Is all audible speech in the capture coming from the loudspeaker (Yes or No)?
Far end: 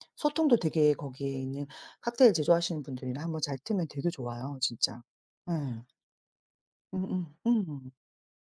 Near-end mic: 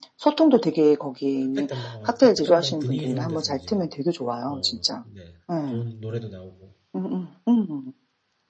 No